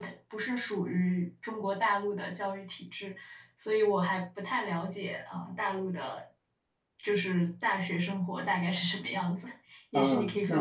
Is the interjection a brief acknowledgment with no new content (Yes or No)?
No